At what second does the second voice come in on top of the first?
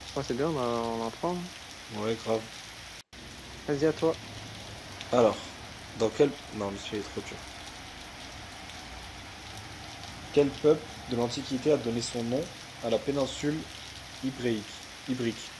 none

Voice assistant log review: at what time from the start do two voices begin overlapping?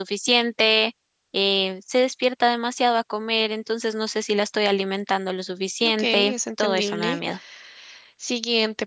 5.8 s

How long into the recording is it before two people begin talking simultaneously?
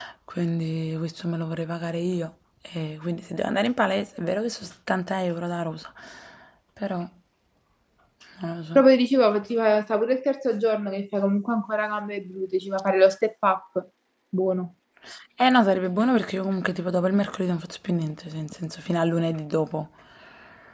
none

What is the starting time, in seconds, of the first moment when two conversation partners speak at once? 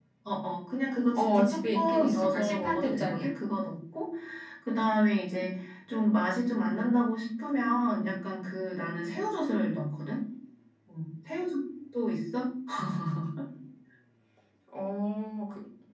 1.2 s

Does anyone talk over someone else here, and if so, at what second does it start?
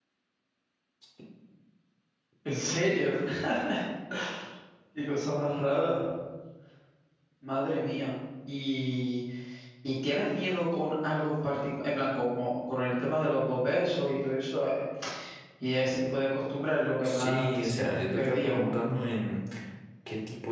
17.0 s

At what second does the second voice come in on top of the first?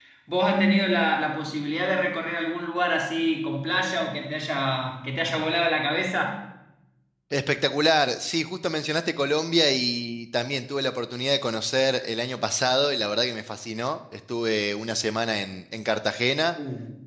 none

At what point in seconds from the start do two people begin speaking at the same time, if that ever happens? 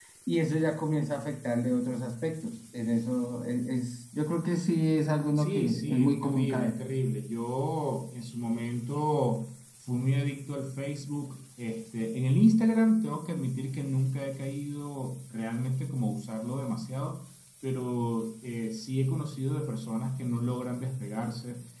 5.3 s

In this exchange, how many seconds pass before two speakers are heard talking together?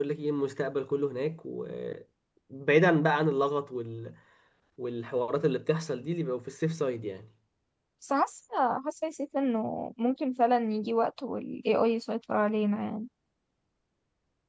none

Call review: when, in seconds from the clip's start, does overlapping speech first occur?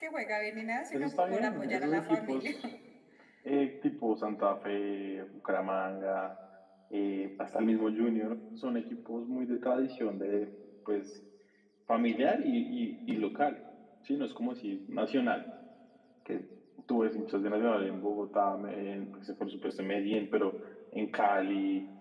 0.9 s

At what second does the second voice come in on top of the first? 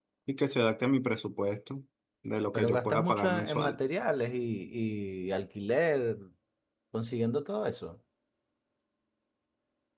2.5 s

